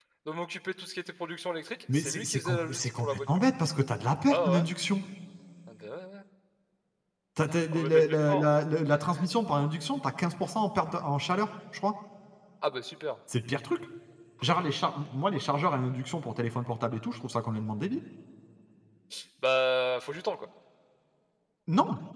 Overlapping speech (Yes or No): Yes